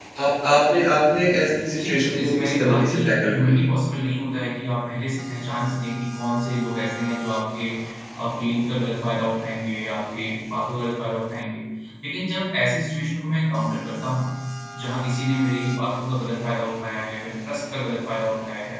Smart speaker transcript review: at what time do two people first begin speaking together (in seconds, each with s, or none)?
1.8 s